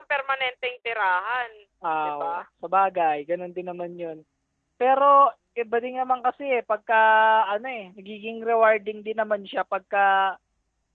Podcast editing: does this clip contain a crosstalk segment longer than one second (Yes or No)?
No